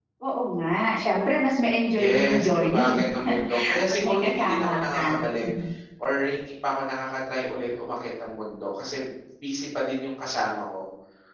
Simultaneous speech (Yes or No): Yes